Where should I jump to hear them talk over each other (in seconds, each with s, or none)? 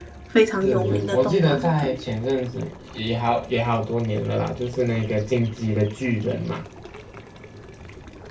0.6 s